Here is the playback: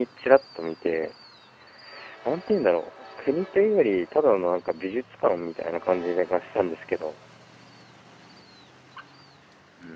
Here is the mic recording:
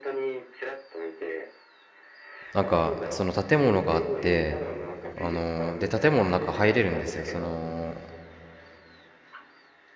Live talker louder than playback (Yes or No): Yes